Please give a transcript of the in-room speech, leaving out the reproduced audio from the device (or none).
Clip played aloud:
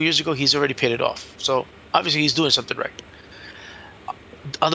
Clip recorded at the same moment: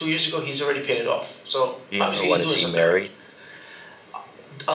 The younger one, is he married?